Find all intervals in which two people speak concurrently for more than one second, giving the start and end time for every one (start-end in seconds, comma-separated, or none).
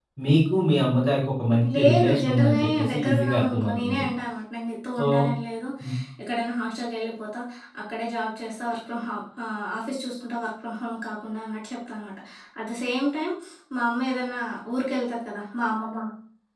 1.7-4.0